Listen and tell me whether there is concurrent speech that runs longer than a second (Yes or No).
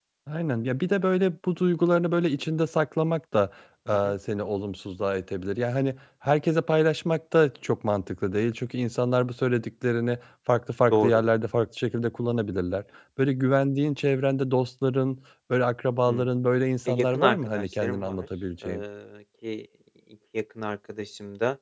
Yes